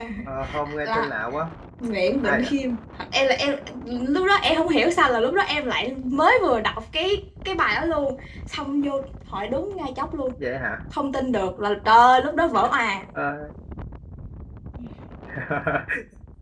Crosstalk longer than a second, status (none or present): none